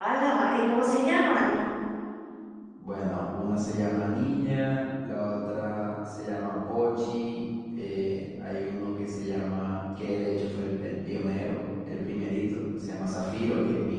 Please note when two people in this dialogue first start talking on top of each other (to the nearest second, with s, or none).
none